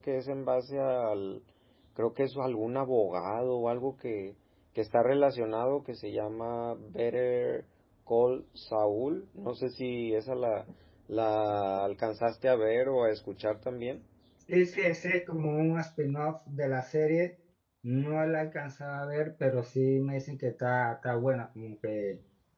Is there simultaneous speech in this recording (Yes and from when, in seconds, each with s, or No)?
No